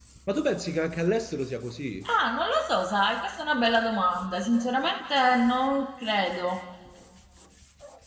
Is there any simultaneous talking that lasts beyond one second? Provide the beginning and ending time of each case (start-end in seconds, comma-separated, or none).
none